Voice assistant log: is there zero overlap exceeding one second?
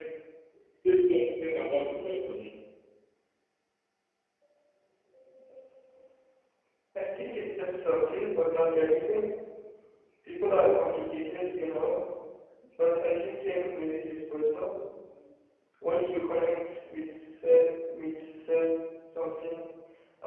Yes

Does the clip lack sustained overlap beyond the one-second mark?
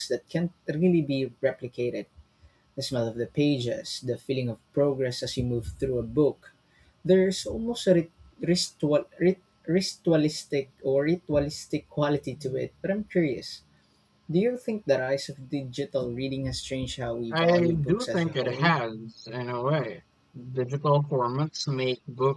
No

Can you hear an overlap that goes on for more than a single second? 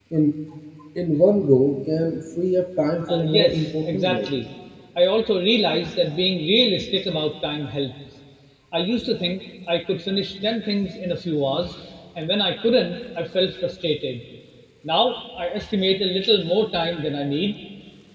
Yes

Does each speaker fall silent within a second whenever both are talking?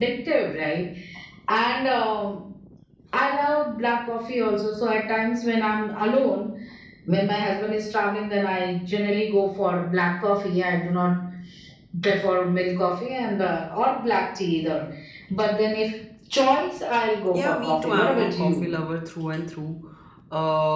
No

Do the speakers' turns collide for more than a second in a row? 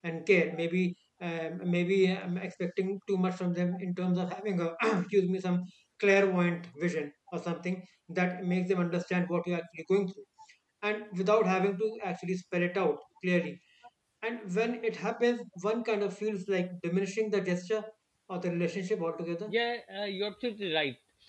No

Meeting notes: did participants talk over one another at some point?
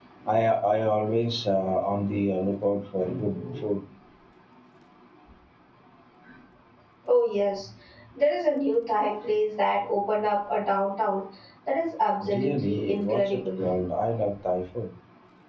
Yes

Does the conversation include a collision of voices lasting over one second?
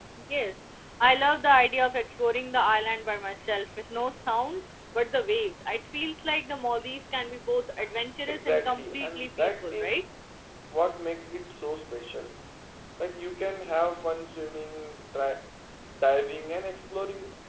Yes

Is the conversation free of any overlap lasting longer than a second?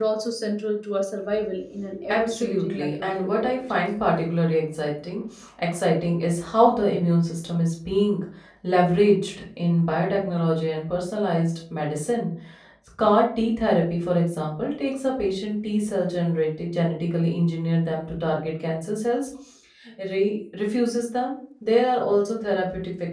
No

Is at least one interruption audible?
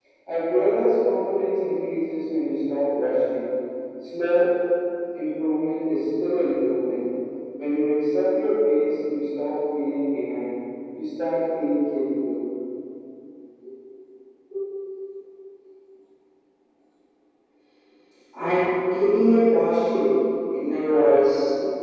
No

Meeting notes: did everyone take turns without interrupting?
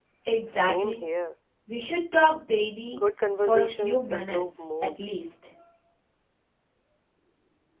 No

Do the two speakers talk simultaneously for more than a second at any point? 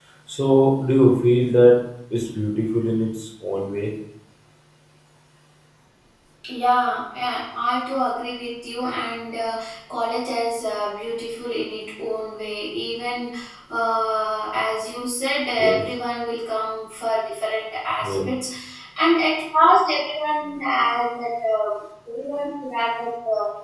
No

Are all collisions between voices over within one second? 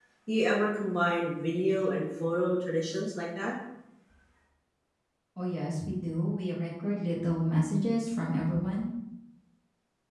Yes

